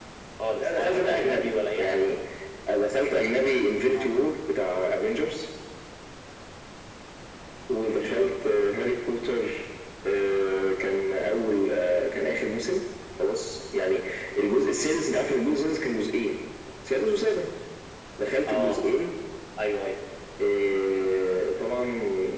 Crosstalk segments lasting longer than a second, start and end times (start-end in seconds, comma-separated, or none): 0.6-2.0